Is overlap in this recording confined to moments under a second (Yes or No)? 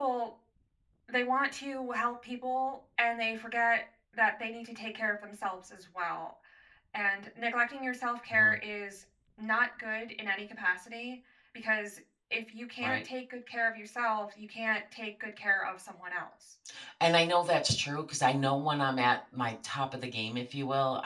Yes